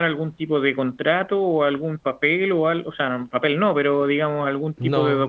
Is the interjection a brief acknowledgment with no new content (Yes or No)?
Yes